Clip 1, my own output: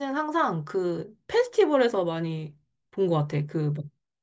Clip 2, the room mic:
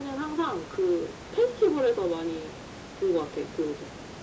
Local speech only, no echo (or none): none